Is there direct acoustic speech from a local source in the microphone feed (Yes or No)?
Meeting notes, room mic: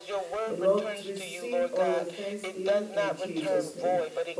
Yes